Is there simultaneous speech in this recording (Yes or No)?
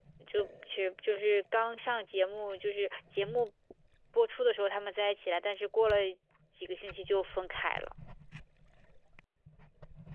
No